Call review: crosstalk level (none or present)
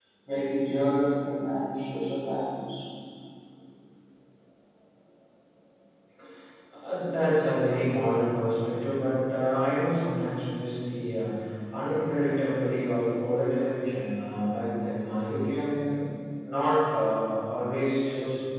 none